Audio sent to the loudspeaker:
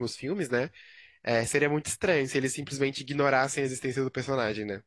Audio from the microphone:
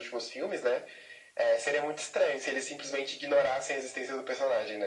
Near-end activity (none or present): none